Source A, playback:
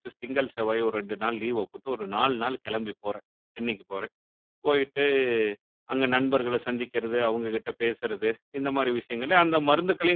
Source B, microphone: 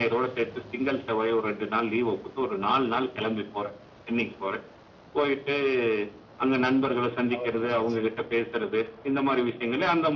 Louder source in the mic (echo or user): echo